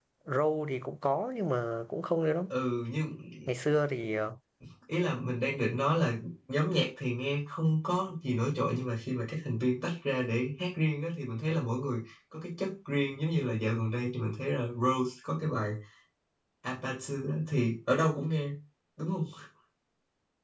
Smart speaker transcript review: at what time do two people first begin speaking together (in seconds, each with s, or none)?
none